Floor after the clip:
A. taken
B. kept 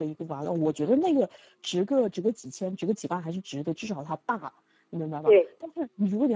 B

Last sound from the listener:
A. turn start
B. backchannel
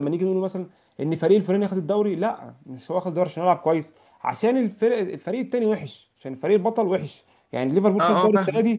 A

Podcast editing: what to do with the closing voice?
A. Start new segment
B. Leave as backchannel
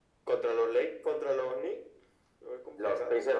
A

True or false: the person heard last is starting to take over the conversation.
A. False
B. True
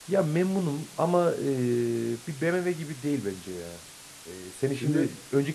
A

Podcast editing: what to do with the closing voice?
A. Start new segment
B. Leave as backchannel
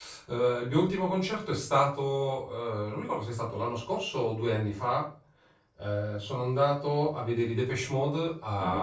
B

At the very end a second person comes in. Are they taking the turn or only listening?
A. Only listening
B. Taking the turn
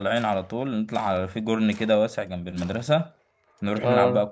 A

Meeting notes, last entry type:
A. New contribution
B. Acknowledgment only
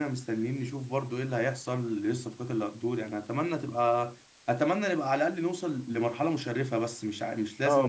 A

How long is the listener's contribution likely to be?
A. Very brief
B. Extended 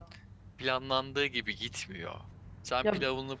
A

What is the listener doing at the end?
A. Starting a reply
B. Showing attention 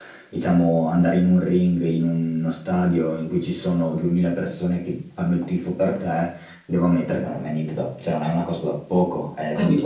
A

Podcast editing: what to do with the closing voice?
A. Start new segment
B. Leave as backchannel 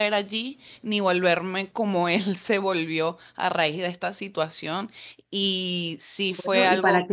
A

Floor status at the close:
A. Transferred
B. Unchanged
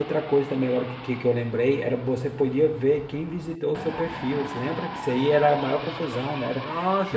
A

